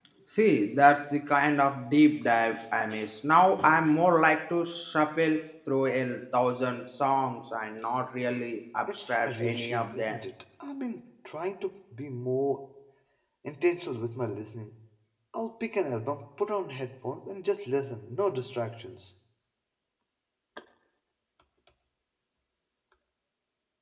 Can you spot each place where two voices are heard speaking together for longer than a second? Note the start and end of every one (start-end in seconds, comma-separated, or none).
8.9-10.2